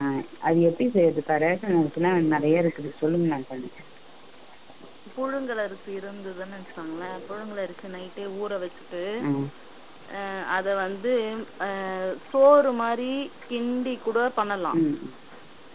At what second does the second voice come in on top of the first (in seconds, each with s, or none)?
none